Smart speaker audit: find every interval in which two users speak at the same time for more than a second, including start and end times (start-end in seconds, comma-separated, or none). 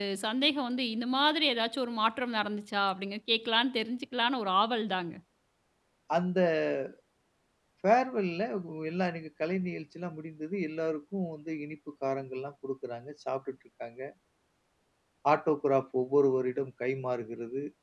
none